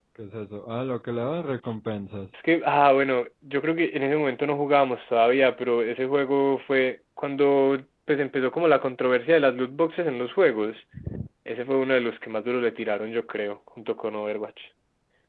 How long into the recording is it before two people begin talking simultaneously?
none

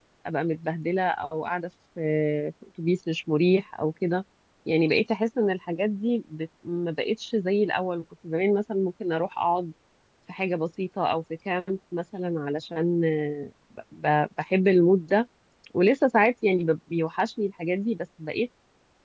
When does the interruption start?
none

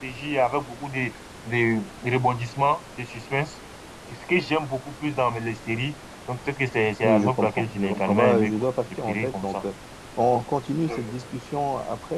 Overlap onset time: 7.0 s

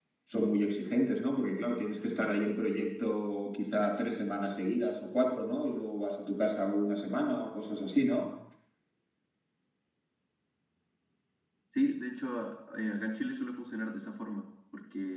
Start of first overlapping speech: none

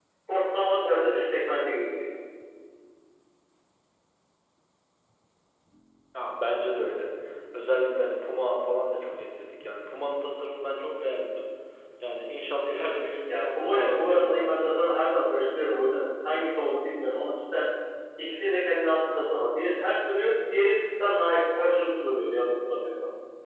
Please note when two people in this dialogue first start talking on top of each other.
13.3 s

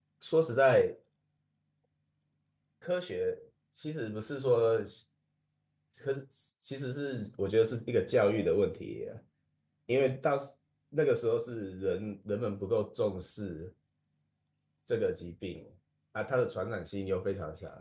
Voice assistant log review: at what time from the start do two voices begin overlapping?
none

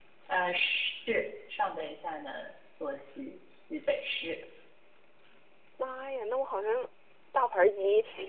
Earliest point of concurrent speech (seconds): none

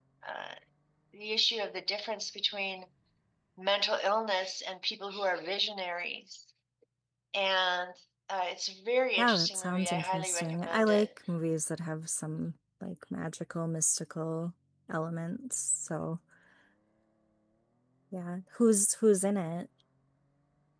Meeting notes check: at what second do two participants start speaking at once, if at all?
9.2 s

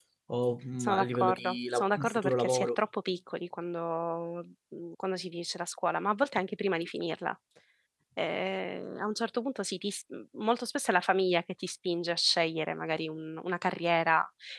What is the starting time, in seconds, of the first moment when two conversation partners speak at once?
0.8 s

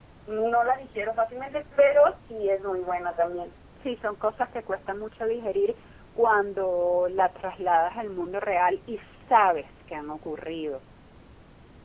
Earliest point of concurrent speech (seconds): none

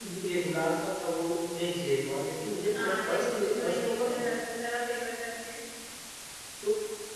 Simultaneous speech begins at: 2.6 s

